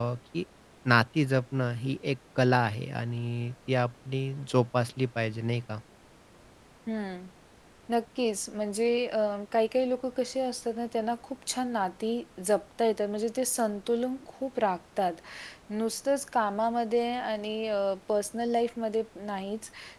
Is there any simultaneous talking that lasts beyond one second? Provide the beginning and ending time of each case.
none

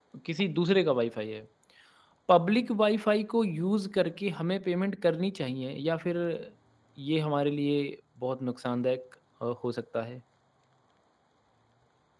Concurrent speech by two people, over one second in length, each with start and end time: none

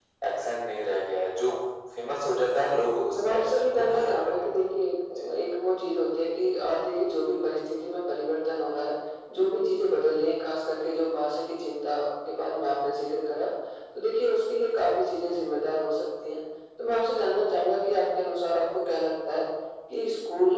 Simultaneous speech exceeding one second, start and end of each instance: 3.1-4.7

